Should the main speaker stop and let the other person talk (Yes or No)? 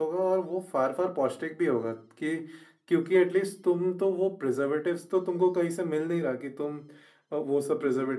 No